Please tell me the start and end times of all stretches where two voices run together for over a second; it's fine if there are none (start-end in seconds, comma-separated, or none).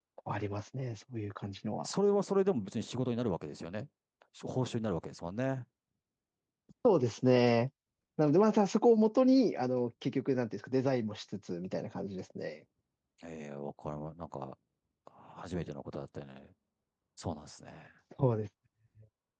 none